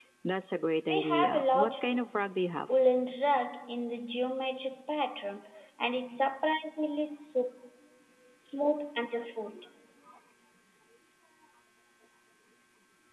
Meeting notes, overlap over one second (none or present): present